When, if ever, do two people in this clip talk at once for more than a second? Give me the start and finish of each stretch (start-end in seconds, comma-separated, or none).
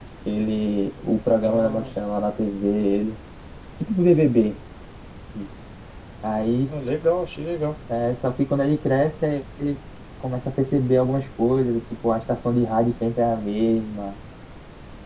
none